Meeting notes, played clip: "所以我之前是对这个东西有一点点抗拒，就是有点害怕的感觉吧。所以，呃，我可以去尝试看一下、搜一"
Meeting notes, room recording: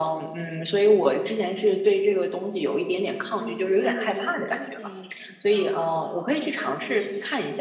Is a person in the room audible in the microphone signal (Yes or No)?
Yes